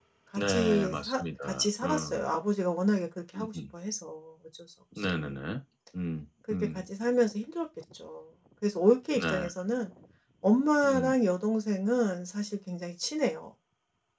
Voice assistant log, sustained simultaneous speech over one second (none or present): present